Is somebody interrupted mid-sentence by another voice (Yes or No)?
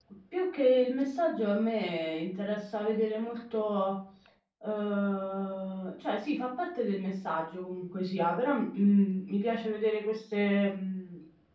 No